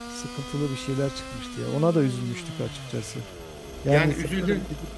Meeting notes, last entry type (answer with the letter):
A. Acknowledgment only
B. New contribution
A